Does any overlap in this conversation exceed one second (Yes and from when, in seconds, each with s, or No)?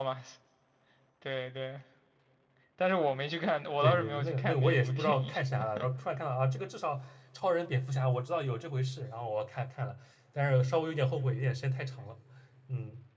Yes, from 3.8 s